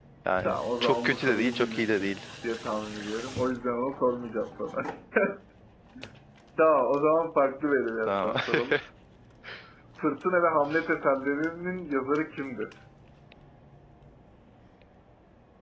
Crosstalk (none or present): present